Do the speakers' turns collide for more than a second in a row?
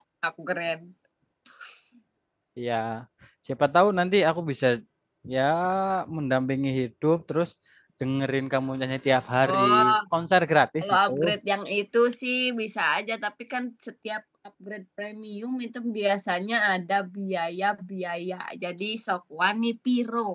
No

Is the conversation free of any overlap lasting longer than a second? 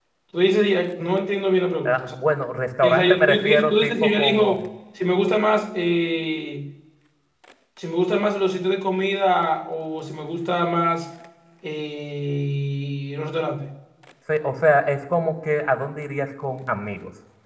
No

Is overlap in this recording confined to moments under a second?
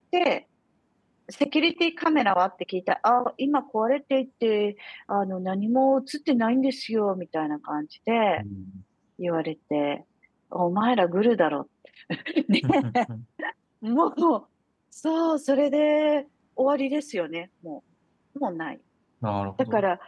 Yes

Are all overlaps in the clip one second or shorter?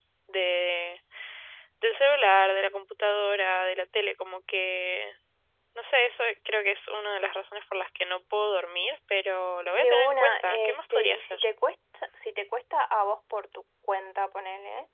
No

